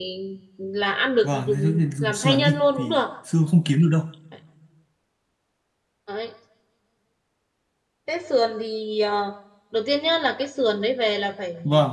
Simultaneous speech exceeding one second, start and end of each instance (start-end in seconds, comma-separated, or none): 1.2-3.0